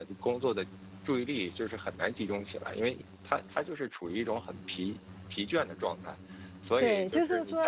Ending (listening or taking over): taking over